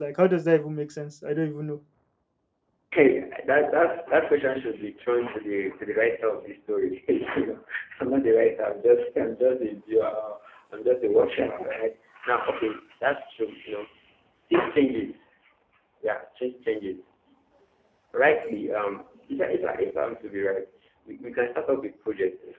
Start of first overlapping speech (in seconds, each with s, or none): none